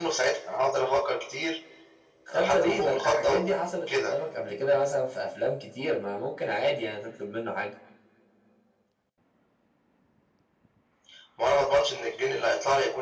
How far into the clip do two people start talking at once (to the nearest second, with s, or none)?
2 s